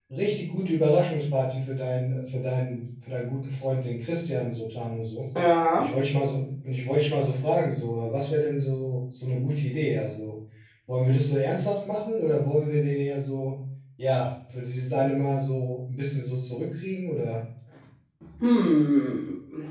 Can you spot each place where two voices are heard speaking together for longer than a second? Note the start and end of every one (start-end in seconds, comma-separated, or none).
none